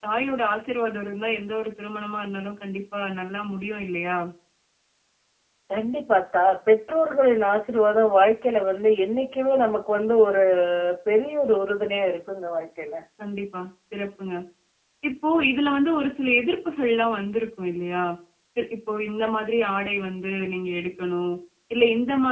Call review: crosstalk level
none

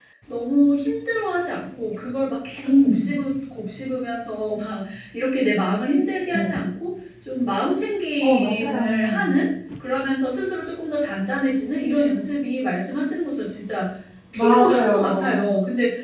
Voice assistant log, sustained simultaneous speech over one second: present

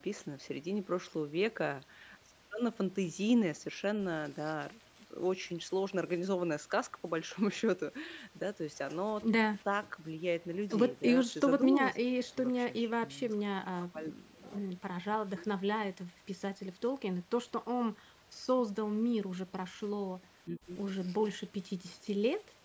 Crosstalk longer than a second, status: present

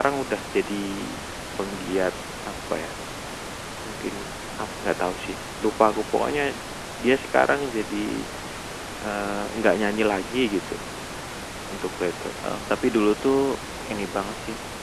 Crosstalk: none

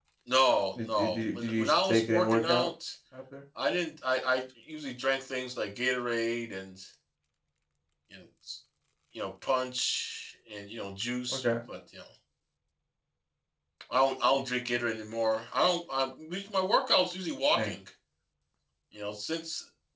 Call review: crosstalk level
present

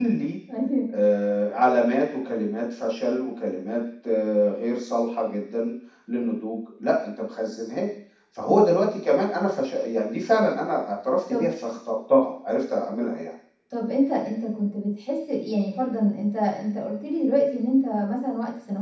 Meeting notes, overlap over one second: none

